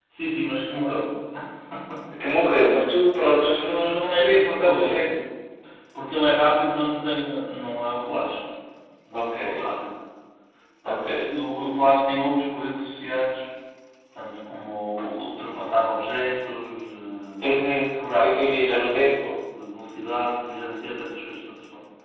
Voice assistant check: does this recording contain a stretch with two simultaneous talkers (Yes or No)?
Yes